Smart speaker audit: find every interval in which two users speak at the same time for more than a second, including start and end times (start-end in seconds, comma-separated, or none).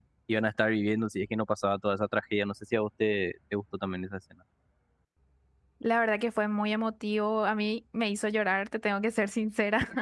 none